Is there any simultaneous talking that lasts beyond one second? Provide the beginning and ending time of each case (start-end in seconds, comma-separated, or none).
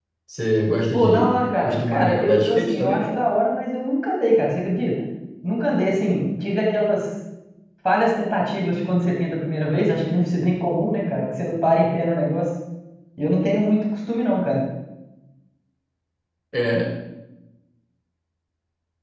0.9-3.0